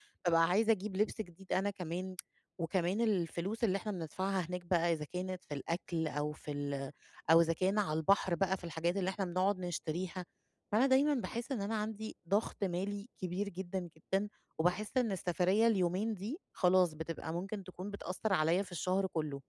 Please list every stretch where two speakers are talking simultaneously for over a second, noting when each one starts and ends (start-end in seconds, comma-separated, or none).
none